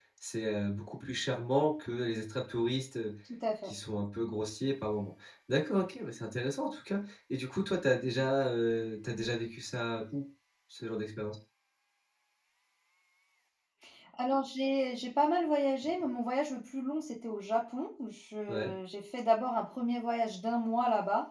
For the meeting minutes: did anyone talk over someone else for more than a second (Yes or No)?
No